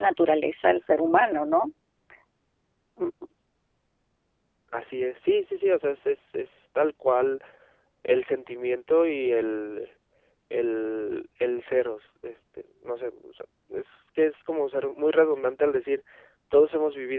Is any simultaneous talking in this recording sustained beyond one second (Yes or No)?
No